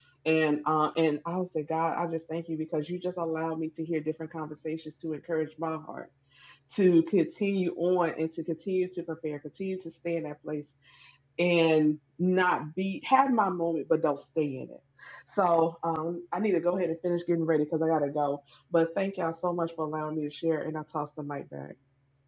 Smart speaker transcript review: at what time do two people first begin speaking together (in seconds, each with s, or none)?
none